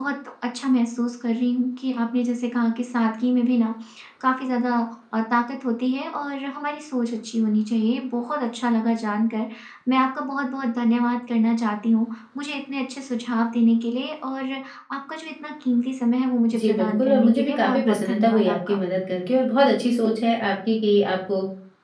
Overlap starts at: 16.5 s

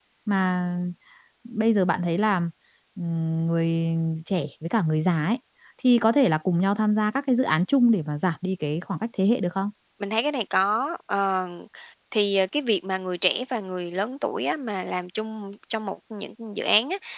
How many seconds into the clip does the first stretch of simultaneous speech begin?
none

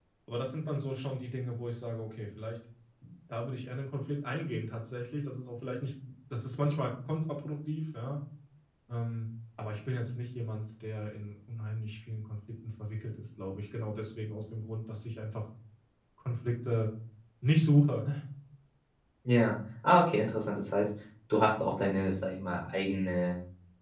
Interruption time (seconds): none

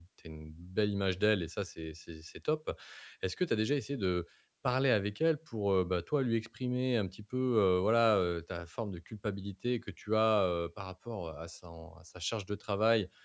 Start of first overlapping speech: none

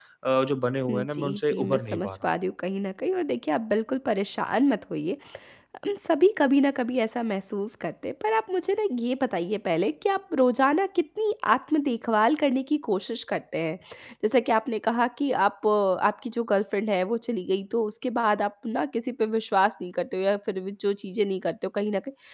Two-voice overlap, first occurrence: 0.9 s

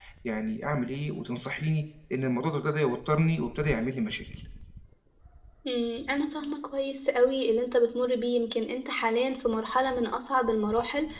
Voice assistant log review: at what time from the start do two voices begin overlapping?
none

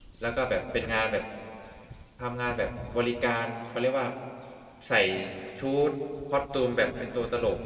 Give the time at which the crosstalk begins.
none

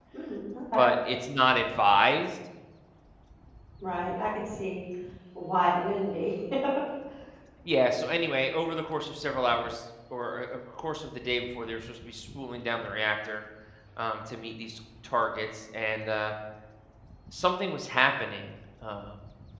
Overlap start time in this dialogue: none

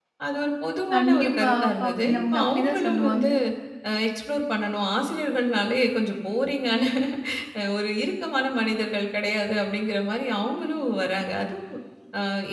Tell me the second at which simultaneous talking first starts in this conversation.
0.9 s

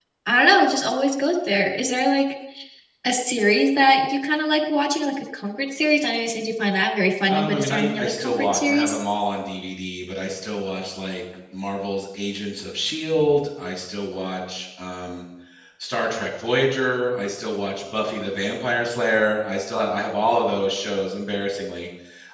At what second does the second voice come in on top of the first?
7.3 s

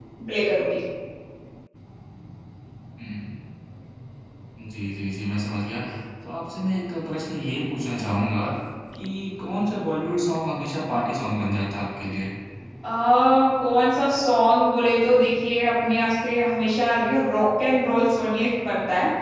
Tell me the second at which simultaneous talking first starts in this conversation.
none

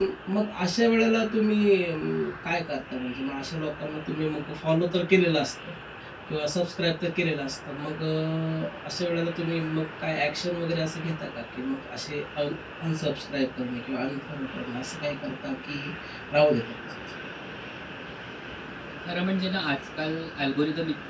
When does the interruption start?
none

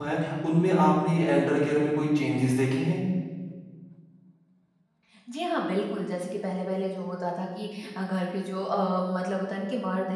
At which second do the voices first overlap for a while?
none

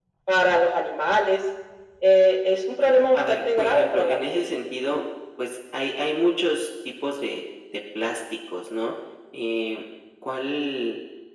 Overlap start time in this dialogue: 2.8 s

